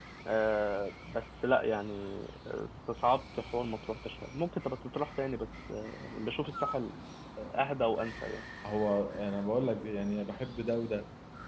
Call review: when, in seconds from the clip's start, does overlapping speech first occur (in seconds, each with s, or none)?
none